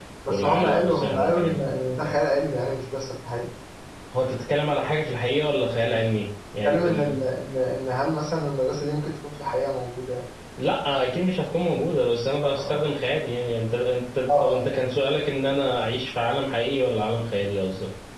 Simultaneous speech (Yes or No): Yes